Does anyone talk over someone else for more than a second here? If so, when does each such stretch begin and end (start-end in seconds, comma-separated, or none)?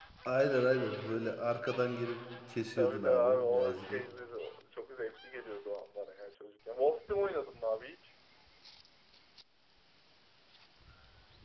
2.8-4.0